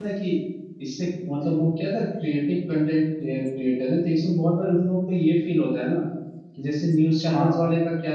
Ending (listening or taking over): listening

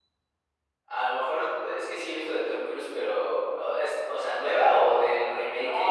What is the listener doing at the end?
taking over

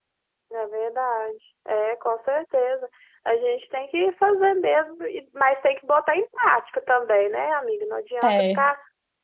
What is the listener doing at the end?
listening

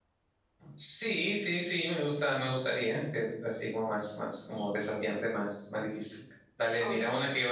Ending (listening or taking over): listening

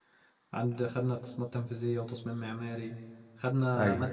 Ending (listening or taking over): listening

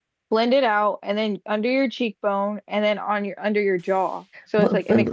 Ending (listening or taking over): taking over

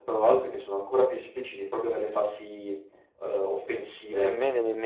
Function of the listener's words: taking over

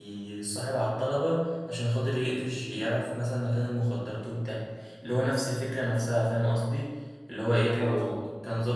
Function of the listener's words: listening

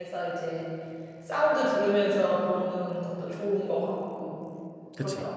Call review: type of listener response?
taking over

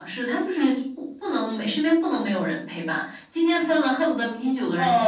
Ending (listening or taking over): taking over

